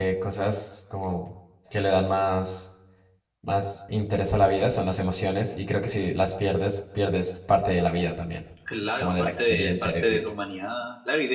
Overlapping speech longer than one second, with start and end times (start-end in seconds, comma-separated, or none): 9.0-10.2